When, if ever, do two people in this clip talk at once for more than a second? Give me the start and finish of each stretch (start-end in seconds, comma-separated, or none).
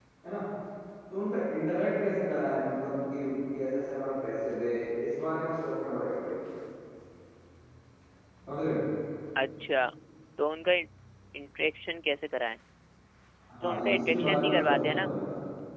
13.6-15.0